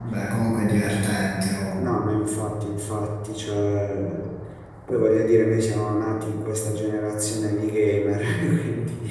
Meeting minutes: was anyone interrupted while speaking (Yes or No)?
No